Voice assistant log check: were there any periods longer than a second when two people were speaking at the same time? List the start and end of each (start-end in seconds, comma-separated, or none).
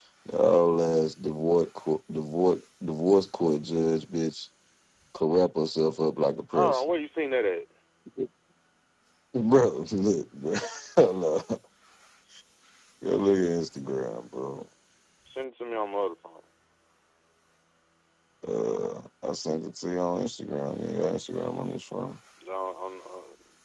none